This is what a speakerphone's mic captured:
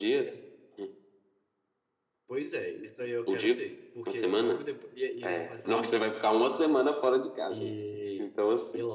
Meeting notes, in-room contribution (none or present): none